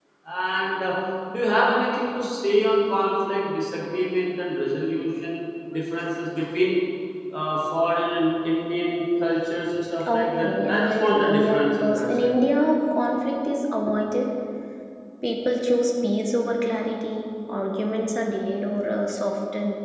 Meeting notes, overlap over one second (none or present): present